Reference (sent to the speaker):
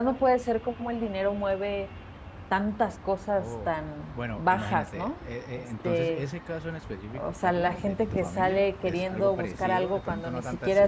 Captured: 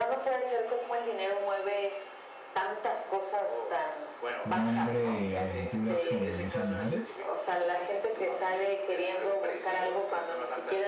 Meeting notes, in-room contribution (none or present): present